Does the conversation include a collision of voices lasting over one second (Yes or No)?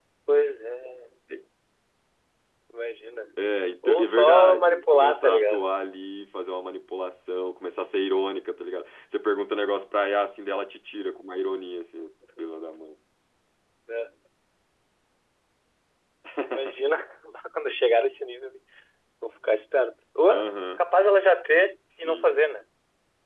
Yes